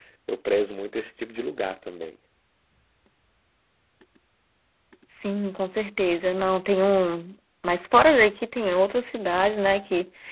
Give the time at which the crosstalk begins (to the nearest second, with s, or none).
none